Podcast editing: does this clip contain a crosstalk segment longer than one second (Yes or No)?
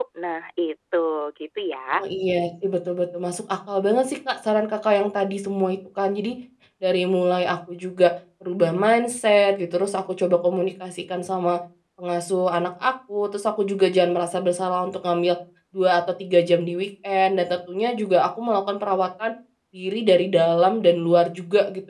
No